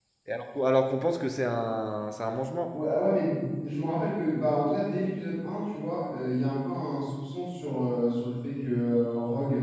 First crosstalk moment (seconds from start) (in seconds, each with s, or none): none